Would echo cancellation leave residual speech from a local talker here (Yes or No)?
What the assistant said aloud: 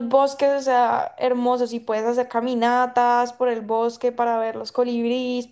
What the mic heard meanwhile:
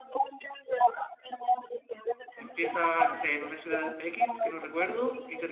Yes